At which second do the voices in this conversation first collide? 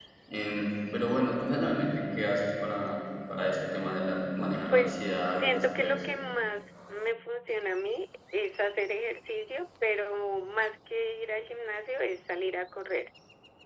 4.7 s

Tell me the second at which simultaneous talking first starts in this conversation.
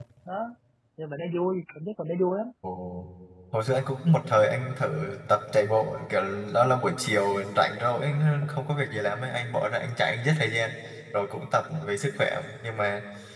none

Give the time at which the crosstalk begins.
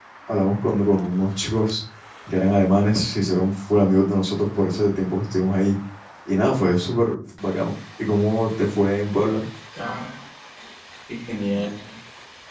none

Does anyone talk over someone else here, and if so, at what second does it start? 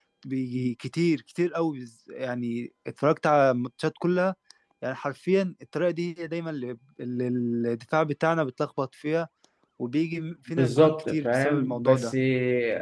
10.6 s

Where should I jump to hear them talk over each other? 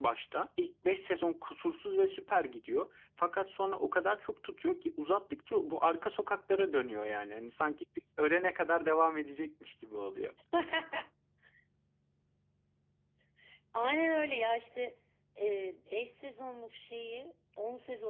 none

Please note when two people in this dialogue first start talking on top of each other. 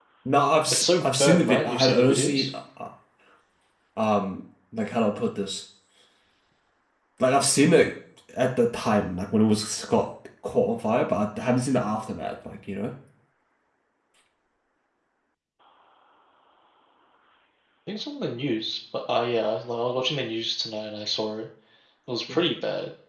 0.7 s

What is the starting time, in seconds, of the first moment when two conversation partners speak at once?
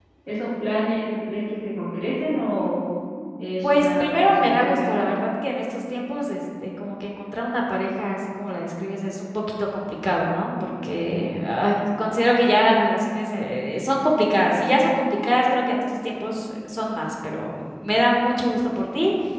3.6 s

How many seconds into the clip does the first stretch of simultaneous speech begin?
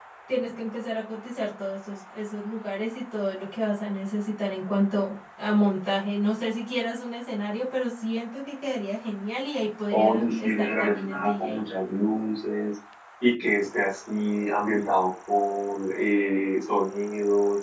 9.9 s

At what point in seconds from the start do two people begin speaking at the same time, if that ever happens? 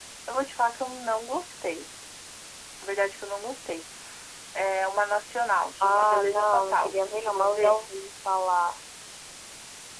5.8 s

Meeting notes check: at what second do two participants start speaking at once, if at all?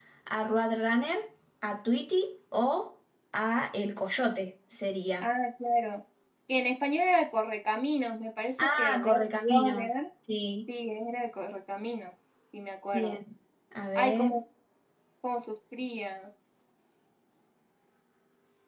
8.6 s

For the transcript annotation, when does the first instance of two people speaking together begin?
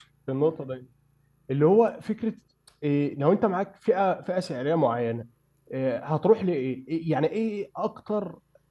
none

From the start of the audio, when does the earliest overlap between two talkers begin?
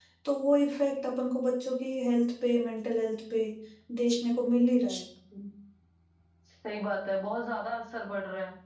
none

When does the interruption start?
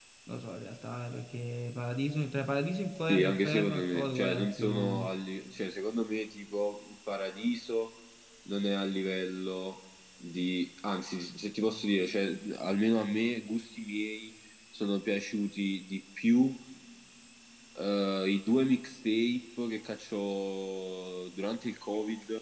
3.1 s

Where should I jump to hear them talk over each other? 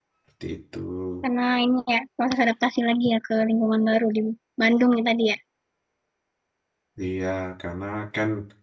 none

